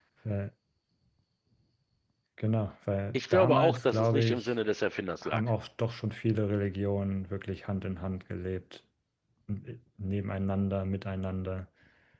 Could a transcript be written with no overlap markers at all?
No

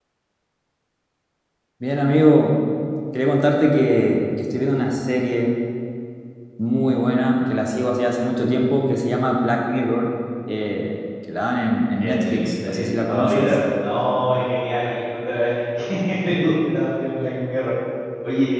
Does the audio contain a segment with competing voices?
Yes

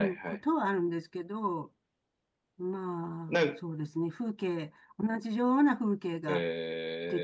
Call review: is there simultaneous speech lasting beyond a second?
No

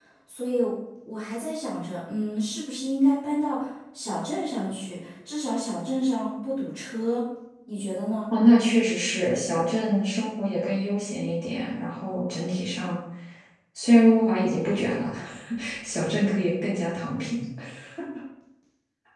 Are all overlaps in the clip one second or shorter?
Yes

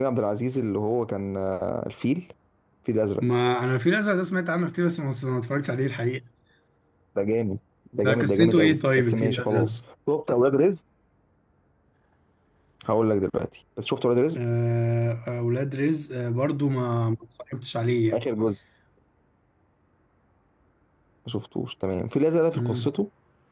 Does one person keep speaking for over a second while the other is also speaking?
Yes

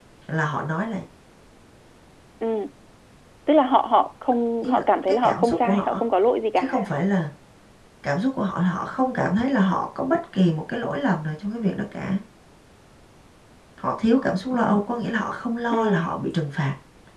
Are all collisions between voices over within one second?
No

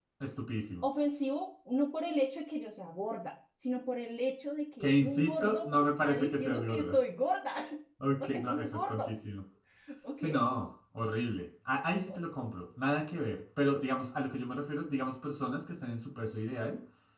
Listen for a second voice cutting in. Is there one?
Yes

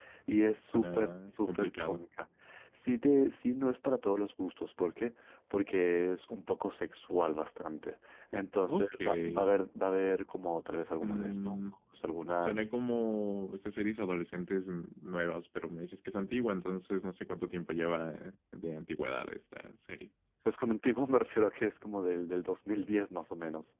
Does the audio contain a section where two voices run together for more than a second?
Yes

